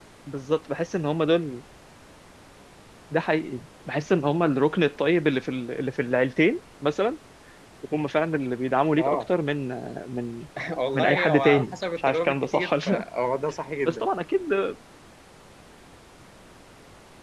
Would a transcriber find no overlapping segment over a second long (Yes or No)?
No